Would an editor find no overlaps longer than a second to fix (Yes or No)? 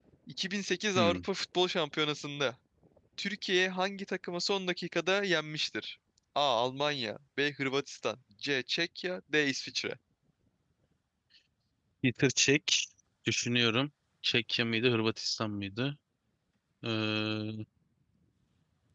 Yes